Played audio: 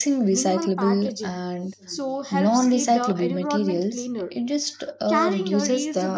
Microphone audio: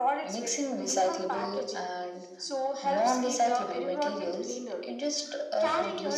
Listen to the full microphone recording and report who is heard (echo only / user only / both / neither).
echo only